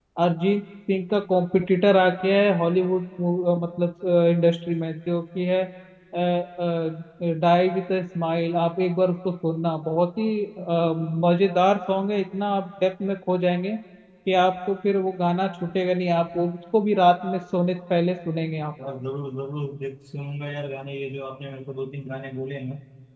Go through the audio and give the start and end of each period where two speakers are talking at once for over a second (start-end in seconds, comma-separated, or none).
none